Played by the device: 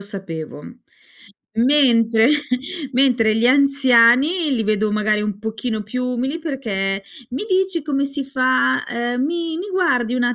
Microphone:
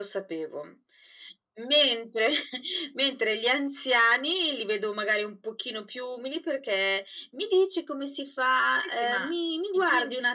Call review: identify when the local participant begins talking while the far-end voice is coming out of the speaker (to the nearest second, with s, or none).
9 s